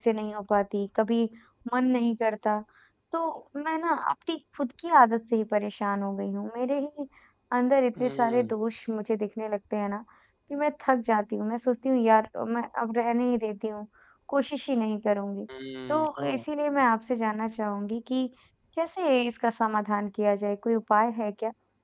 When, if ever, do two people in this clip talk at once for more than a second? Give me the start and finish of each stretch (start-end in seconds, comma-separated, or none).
none